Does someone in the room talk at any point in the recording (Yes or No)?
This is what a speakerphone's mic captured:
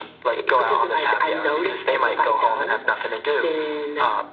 No